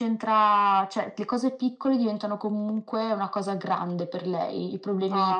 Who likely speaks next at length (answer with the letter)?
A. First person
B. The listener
A